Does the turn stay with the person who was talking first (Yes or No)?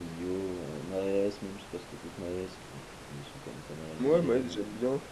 No